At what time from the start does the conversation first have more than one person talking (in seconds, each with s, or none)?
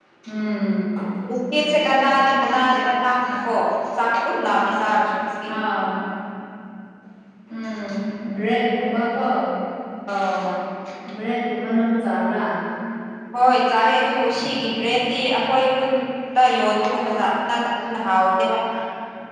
none